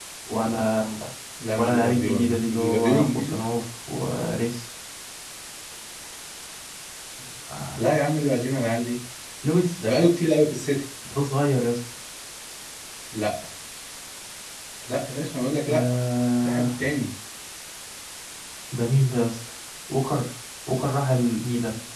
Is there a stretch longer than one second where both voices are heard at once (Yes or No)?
Yes